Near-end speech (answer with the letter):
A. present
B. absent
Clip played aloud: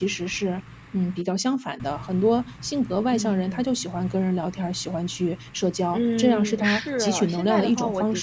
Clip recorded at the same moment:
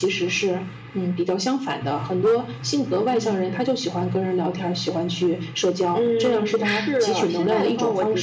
B